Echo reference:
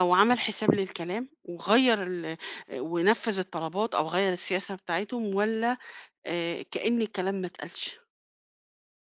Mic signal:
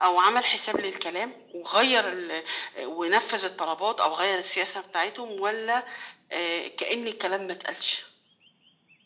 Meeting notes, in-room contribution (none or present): none